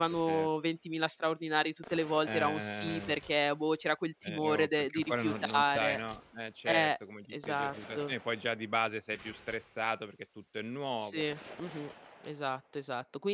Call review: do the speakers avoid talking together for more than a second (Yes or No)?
No